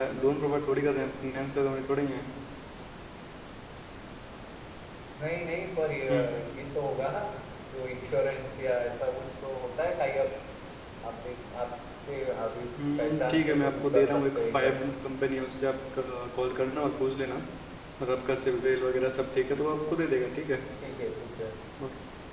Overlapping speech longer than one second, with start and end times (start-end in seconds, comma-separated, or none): 13.0-14.8